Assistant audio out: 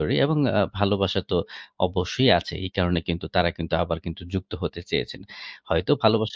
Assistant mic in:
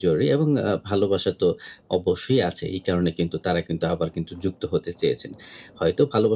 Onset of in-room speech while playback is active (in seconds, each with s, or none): none